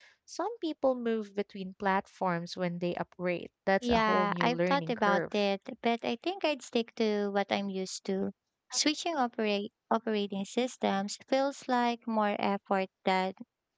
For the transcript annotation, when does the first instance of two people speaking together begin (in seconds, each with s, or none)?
3.8 s